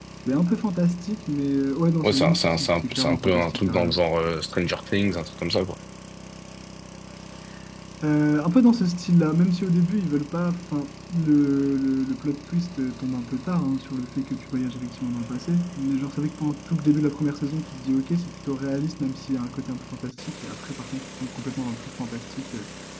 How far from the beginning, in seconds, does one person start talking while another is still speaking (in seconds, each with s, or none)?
2.0 s